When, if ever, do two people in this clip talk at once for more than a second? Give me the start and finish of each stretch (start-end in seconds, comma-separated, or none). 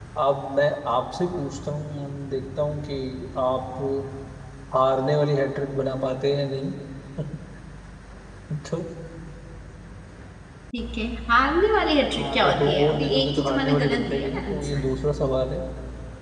12.2-14.8